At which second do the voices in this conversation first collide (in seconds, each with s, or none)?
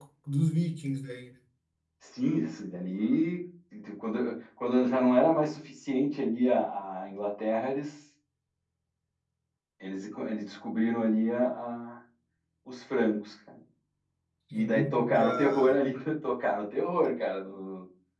14.5 s